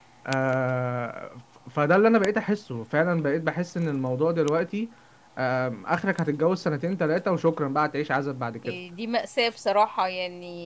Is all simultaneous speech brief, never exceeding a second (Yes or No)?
Yes